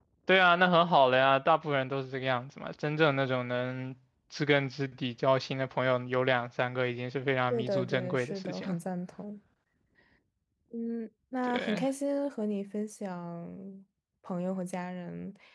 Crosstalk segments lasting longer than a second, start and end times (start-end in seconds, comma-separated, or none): 7.5-8.8